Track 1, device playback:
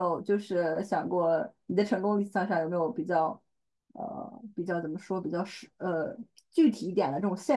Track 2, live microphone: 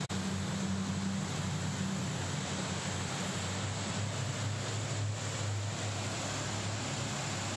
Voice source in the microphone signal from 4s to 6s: neither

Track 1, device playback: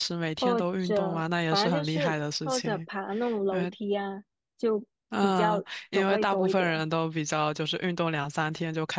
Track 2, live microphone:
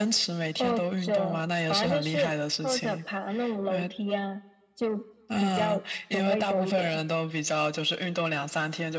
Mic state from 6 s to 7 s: echo only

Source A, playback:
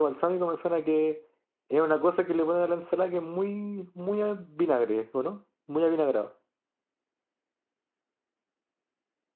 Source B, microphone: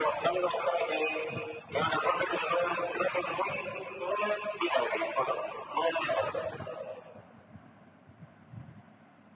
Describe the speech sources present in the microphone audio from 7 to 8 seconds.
neither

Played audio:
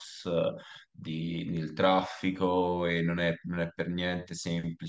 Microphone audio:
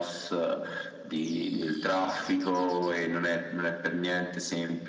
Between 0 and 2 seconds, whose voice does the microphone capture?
echo only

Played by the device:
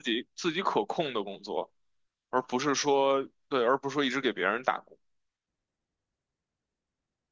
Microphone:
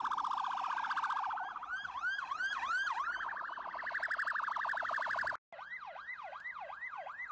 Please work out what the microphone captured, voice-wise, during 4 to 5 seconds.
neither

